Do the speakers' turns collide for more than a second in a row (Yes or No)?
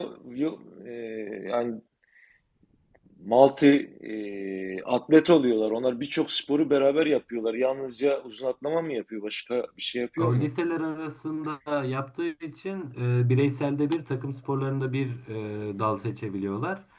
No